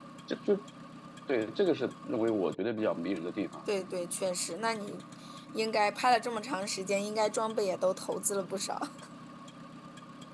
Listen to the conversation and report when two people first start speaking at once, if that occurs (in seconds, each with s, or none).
none